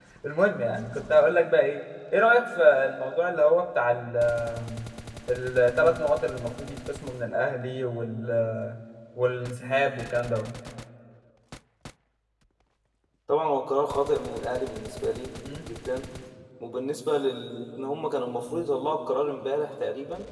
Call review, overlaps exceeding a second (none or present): none